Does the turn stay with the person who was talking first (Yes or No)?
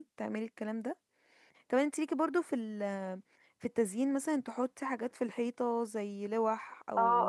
No